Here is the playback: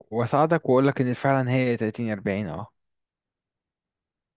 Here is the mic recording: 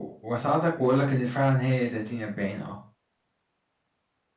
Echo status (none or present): present